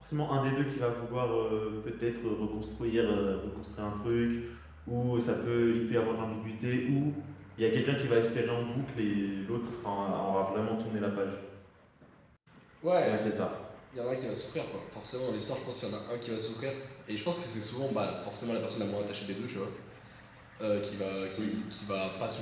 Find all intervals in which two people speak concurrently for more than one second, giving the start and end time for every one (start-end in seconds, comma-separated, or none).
none